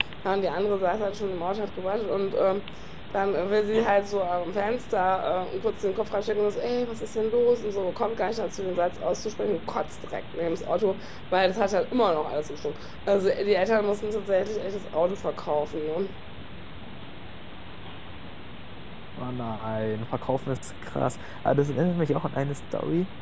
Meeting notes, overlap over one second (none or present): none